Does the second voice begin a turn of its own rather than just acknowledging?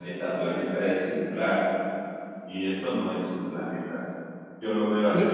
No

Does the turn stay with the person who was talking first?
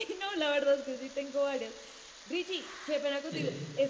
Yes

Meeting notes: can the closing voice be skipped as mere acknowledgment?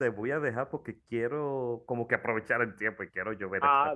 No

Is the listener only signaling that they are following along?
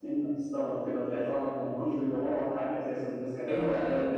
No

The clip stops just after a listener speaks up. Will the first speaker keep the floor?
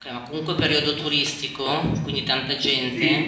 No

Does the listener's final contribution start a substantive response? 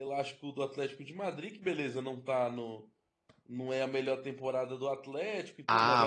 Yes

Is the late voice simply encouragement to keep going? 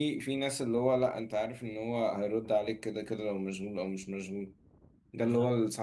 Yes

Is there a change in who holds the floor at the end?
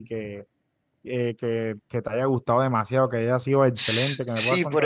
Yes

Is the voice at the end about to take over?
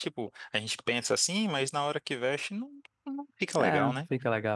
Yes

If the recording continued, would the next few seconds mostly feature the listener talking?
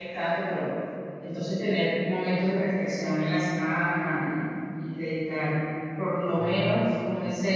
No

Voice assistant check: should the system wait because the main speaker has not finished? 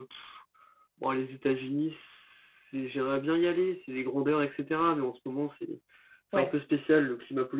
Yes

